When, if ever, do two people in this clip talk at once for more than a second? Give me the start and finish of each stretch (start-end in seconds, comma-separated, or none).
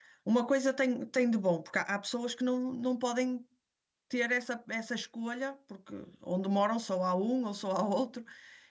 none